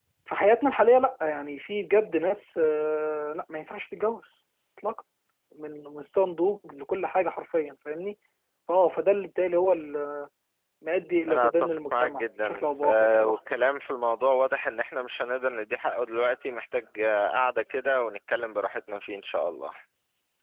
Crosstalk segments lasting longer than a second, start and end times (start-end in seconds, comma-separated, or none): 11.3-13.4